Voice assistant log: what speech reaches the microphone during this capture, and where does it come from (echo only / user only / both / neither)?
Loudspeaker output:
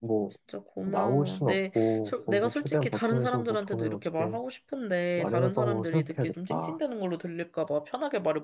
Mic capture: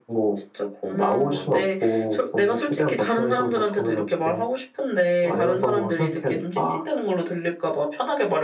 echo only